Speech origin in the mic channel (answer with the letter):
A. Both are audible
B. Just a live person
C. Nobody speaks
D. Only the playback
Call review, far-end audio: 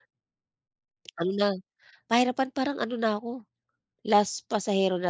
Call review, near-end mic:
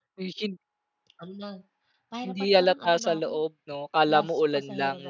A